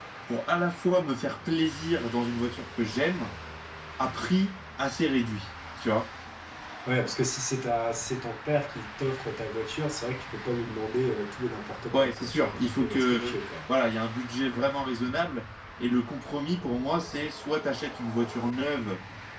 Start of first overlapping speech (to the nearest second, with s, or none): 12 s